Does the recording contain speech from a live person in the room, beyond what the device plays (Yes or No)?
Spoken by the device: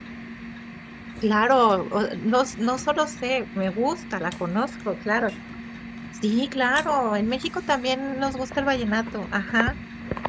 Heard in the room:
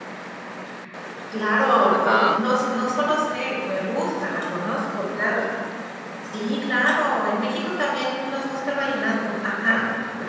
Yes